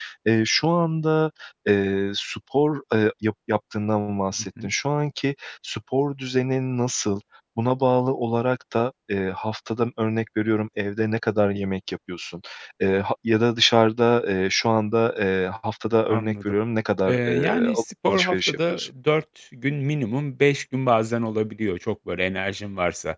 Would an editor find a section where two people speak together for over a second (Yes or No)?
Yes